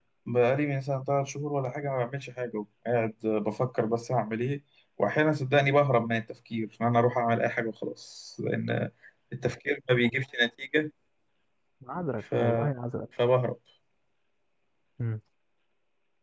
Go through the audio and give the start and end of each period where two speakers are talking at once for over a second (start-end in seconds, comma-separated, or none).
none